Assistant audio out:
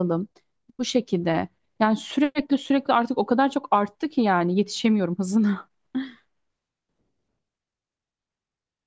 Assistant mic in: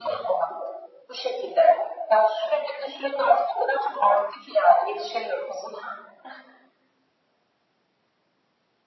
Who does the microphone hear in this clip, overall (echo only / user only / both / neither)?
echo only